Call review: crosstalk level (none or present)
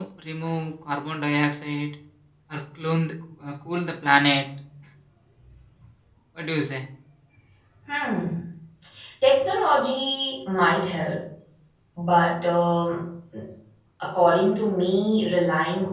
none